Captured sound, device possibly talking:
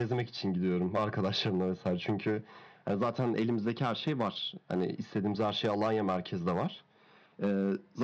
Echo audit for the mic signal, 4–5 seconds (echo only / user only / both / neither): echo only